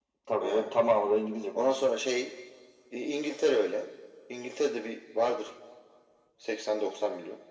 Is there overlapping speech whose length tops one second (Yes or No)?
No